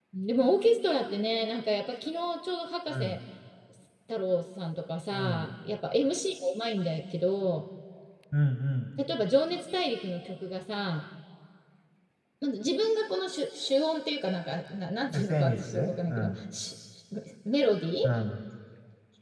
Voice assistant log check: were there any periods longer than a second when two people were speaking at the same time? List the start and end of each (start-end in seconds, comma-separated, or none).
15.1-16.4